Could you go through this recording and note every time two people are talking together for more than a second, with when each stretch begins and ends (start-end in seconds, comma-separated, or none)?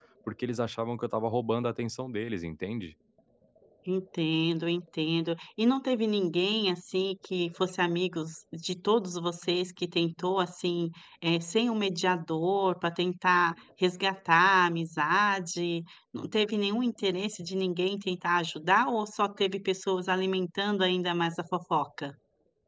none